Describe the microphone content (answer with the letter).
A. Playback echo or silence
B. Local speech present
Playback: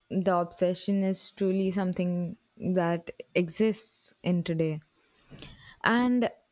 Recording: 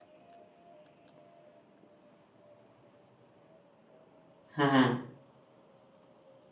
B